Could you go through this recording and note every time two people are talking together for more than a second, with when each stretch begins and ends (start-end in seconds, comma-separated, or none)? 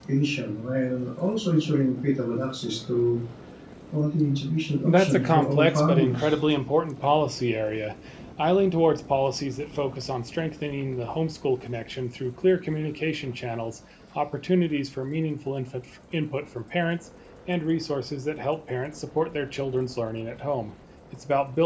4.8-6.4